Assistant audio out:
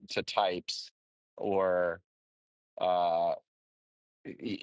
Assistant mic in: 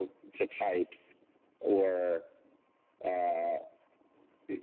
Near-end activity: none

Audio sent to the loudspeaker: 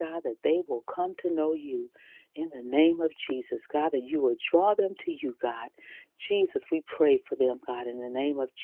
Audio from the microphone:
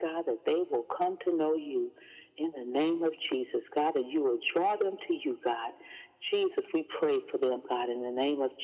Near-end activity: none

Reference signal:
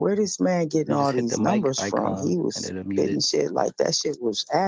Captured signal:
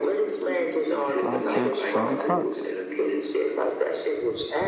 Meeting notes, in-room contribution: present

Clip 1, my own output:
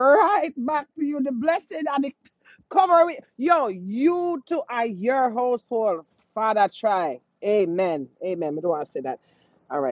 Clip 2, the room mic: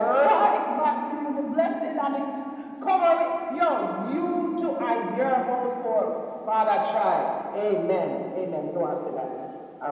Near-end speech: none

